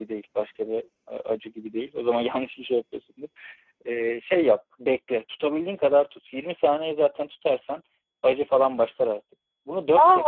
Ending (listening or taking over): taking over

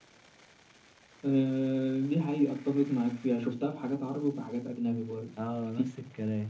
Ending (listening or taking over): taking over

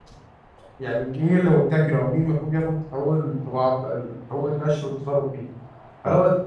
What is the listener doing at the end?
listening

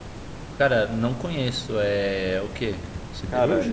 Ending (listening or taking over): taking over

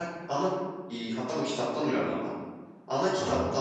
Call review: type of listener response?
listening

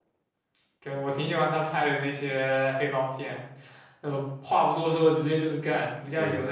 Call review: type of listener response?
listening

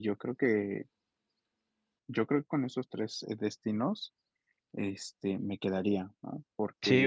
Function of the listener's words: taking over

